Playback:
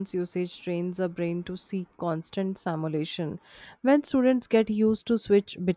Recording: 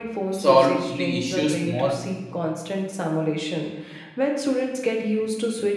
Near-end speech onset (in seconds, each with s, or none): 0.4 s